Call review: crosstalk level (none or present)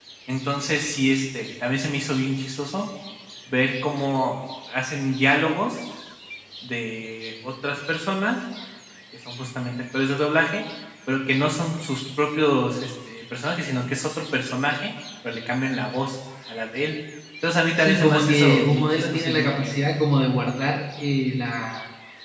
present